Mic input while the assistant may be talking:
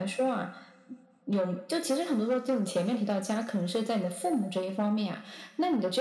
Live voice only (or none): none